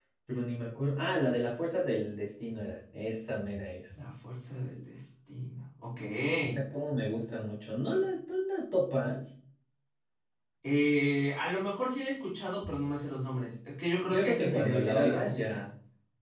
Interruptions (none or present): present